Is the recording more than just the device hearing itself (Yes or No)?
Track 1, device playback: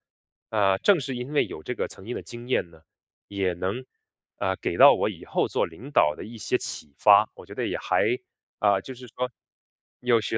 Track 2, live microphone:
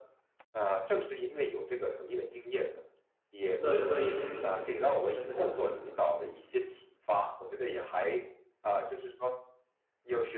Yes